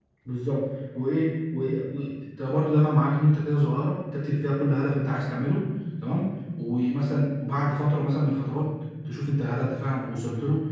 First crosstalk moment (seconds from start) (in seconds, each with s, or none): none